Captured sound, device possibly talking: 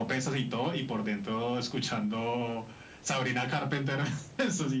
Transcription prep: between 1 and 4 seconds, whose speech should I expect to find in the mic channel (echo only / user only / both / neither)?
echo only